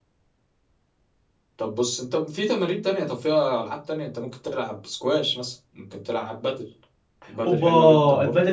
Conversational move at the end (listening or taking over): taking over